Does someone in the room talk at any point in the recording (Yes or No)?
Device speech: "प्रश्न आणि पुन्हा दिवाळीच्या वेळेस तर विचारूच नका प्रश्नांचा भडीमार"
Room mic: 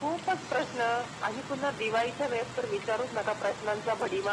No